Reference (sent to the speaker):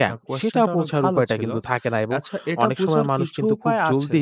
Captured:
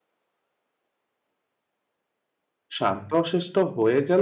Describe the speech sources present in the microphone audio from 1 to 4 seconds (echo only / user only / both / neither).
user only